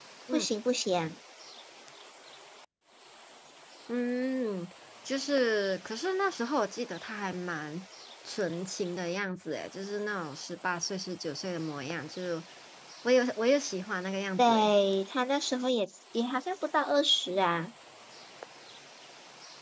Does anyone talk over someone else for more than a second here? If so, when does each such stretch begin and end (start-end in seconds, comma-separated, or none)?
none